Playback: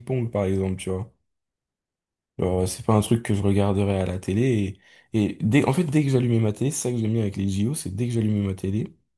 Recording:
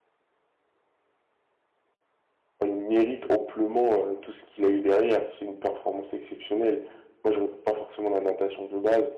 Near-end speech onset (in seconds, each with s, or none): 2.6 s